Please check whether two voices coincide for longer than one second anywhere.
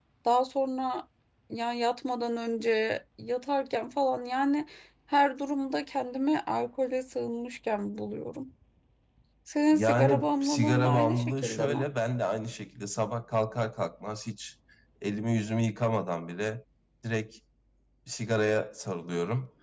Yes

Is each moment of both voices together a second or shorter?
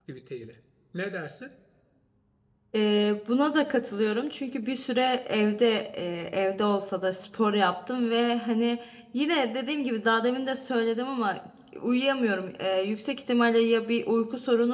Yes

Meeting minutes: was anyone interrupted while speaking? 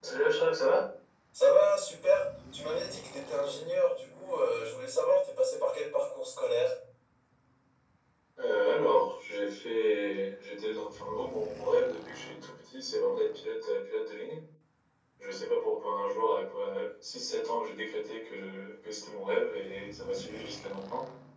No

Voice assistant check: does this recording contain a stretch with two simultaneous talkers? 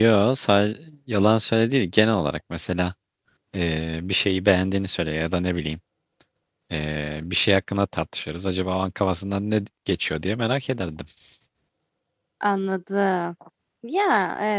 No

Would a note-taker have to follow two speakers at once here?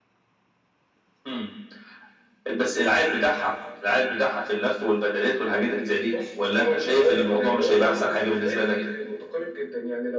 Yes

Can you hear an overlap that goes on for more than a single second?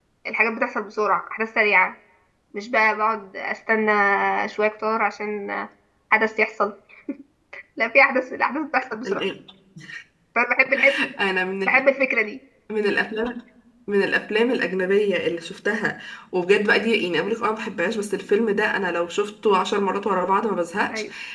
No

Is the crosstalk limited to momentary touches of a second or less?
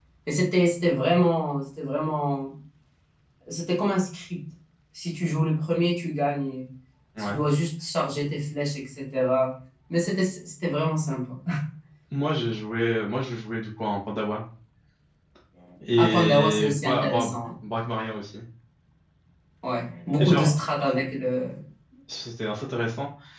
No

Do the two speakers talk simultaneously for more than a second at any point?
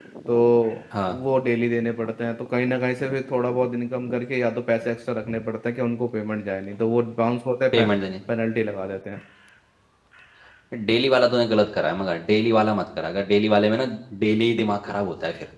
No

